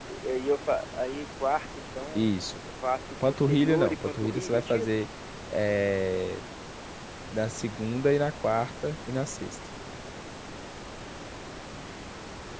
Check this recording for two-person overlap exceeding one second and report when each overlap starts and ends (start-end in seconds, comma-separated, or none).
3.3-5.0